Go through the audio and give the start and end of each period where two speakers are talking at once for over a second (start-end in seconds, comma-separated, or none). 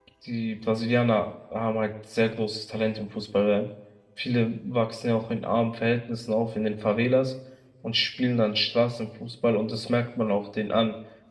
none